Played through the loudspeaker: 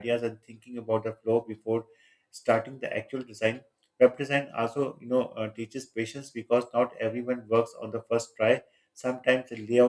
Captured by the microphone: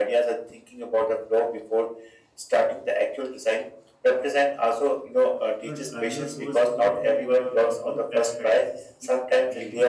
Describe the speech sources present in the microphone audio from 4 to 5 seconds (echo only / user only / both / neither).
echo only